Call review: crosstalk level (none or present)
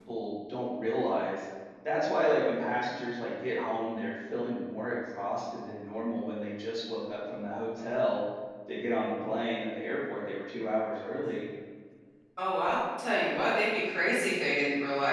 none